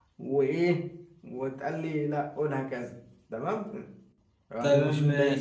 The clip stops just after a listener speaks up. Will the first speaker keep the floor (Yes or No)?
No